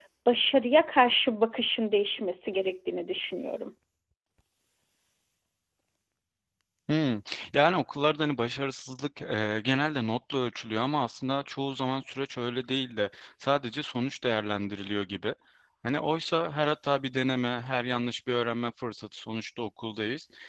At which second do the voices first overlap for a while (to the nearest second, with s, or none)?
none